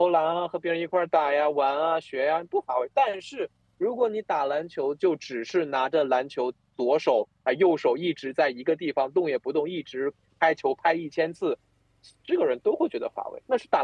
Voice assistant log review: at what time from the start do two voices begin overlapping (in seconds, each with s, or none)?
none